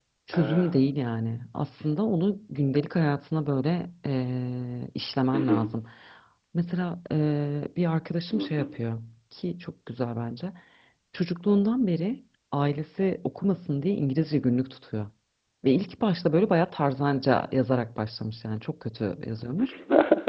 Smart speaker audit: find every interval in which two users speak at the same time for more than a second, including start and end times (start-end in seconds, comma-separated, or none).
none